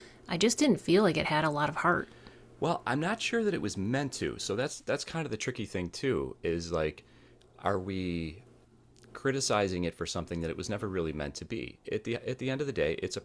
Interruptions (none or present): none